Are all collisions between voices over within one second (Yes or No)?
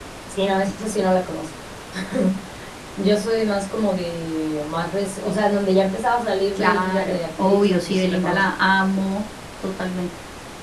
No